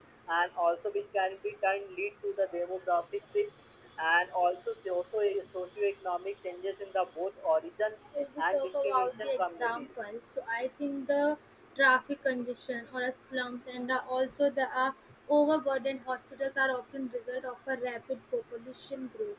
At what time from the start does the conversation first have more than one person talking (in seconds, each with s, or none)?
8.5 s